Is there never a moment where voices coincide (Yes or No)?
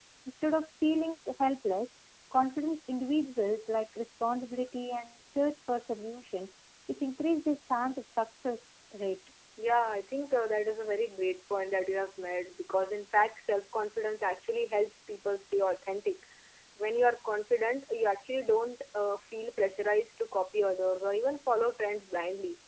Yes